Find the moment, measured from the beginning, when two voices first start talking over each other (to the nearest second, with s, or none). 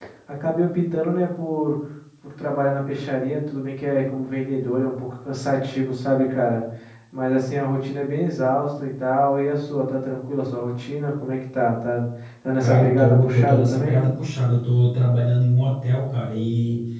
13 s